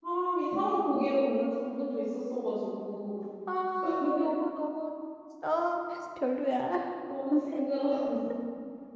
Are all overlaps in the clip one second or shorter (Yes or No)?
Yes